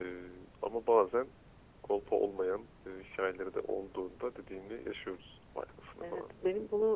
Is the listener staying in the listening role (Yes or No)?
No